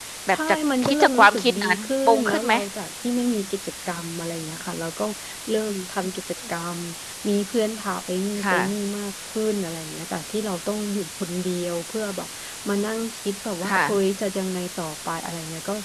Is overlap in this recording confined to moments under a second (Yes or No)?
No